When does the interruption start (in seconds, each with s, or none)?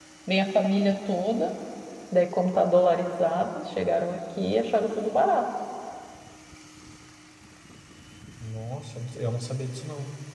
none